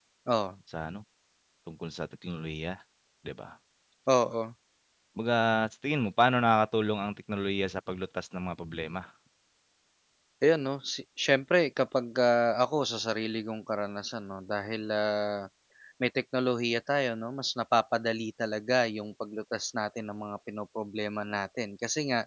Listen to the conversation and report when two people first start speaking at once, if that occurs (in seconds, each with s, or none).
none